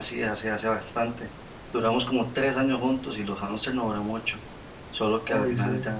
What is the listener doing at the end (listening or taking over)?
listening